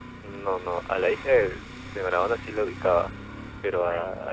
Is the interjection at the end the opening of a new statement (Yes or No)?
No